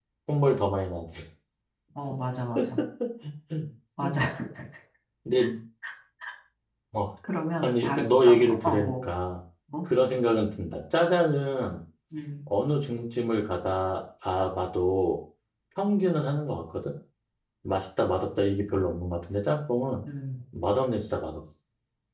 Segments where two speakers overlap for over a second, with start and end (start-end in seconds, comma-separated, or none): 7.6-9.0